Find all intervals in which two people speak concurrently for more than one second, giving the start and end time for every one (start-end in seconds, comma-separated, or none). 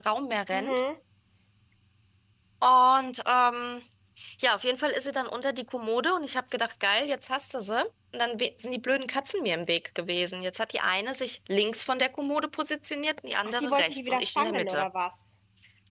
13.6-14.9